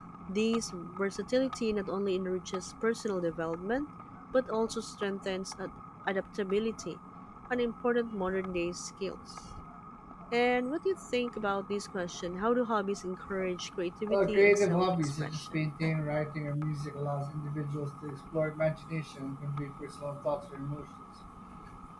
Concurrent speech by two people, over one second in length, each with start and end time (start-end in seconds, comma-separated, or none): 14.1-15.6